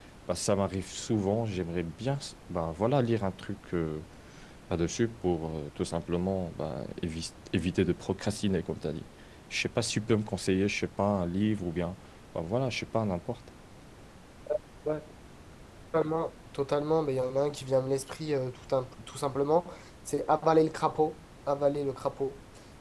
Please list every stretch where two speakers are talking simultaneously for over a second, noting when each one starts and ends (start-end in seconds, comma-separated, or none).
none